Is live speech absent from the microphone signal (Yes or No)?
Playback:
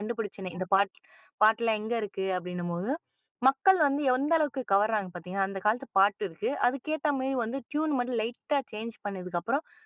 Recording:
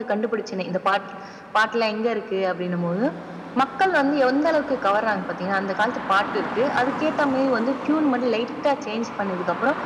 Yes